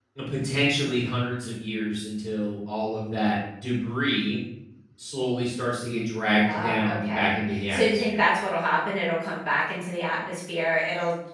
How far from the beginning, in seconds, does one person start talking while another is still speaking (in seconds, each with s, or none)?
6.4 s